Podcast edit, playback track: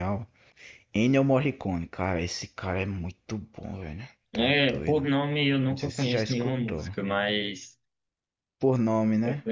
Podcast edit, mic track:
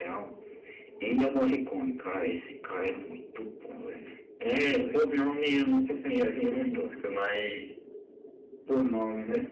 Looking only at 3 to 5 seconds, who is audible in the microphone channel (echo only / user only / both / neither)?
echo only